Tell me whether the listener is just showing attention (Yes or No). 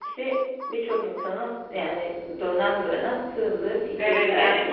No